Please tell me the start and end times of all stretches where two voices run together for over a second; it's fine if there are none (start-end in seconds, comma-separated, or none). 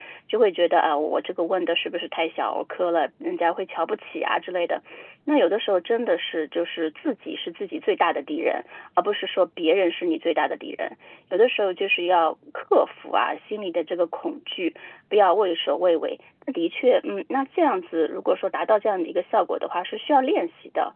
none